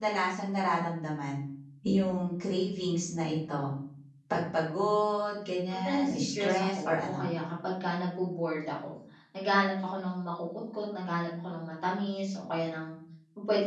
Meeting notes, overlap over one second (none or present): present